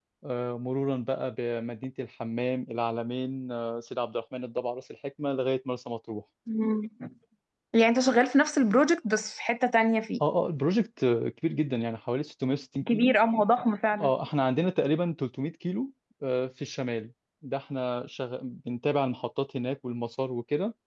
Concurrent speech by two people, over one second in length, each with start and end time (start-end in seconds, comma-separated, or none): none